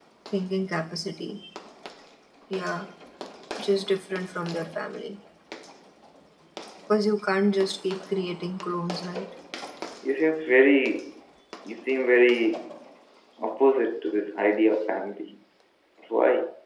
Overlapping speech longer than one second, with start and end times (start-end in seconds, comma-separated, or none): none